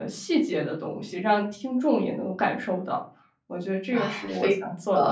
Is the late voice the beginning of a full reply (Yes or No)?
Yes